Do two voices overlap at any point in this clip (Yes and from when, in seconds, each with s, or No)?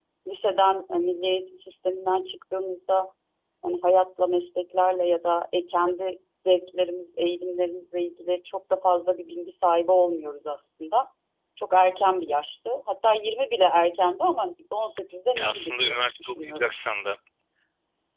Yes, from 15.3 s